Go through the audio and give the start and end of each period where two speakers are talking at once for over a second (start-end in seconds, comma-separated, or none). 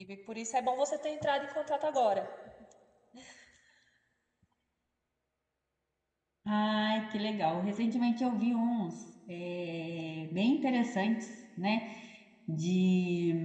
none